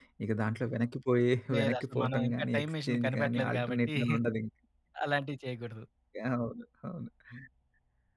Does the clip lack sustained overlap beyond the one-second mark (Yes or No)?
No